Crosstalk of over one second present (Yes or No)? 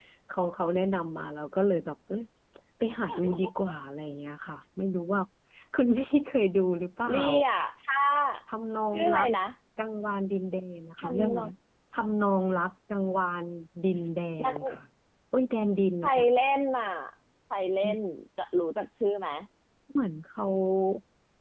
No